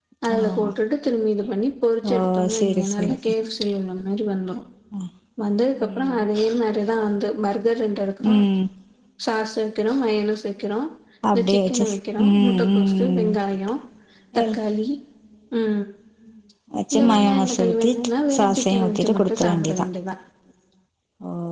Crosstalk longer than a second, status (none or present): present